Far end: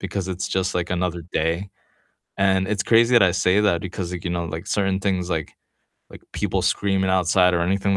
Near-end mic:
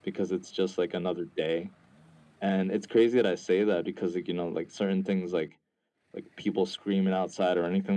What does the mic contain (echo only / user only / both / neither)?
echo only